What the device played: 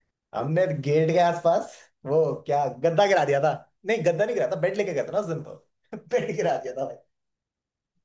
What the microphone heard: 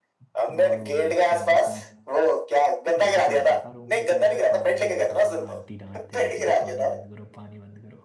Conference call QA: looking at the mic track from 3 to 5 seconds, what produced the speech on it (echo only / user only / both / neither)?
both